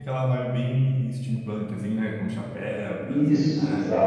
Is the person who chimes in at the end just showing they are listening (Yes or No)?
No